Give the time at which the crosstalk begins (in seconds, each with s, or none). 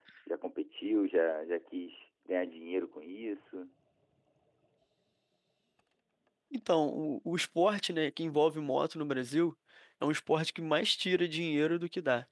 none